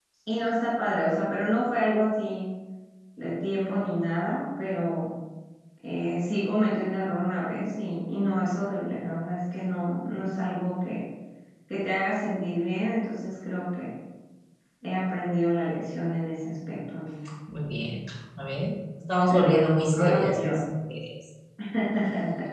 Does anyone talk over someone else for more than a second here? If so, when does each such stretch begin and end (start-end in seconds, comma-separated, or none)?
19.3-20.6